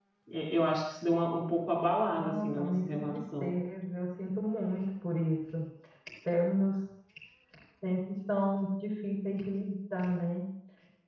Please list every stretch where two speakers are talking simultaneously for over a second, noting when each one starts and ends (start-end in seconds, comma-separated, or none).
2.1-3.5